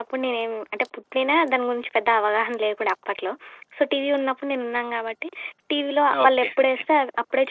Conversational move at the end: listening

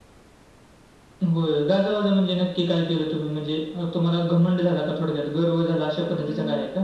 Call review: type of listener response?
taking over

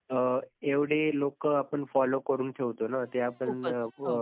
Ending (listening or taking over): listening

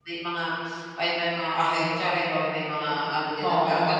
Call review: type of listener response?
listening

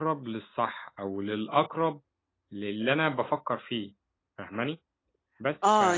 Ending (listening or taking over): taking over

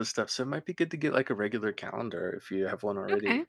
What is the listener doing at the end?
listening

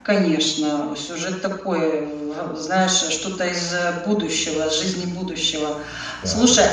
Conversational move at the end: listening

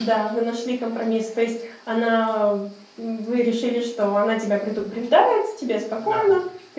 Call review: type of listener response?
listening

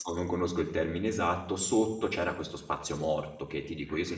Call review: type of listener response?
listening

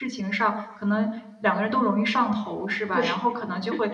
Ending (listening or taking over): listening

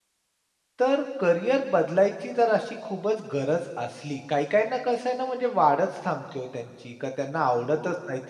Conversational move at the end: listening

